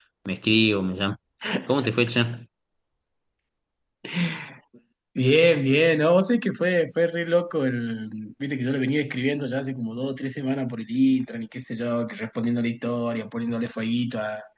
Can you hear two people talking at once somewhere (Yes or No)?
No